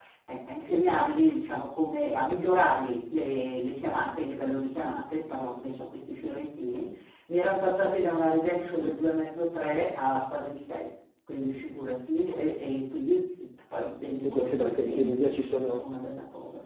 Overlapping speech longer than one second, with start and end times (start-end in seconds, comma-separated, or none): 14.0-15.8